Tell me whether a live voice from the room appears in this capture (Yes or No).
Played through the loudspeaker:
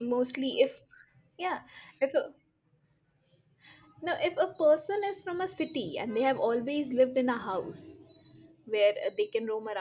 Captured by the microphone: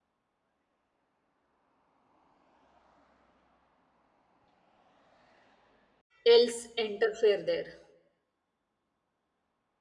Yes